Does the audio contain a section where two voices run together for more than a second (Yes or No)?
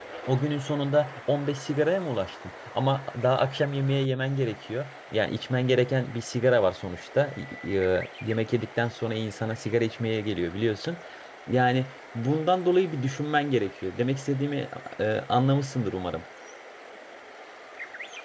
No